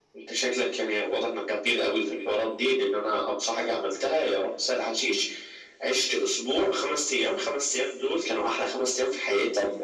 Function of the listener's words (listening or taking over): taking over